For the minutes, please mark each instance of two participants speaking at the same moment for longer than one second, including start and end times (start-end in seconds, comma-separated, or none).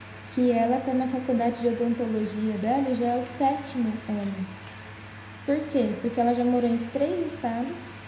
none